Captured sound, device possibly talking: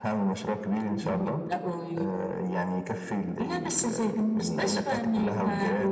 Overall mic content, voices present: echo only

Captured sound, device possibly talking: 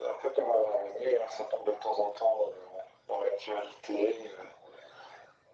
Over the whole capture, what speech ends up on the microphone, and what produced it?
echo only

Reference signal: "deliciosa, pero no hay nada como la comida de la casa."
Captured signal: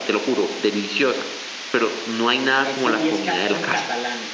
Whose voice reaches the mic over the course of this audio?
both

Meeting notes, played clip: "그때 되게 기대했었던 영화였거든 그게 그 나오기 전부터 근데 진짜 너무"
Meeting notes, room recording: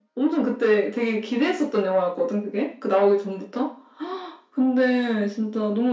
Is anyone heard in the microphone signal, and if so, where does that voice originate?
echo only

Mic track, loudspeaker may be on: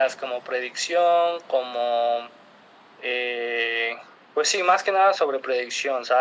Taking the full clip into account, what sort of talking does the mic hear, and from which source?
echo only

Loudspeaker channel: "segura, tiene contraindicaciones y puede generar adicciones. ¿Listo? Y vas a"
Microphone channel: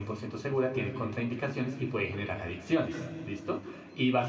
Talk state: echo only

